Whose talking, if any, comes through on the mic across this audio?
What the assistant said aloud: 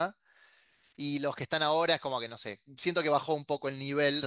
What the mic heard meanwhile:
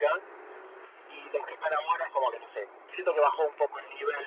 echo only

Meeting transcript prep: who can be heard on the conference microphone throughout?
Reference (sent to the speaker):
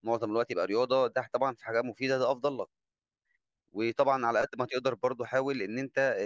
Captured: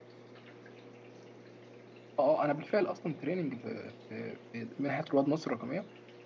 user only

